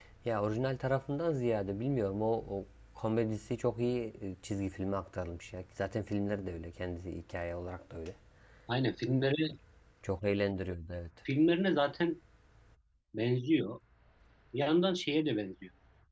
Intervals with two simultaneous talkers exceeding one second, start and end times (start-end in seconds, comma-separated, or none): none